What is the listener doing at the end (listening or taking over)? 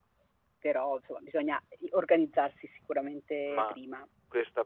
taking over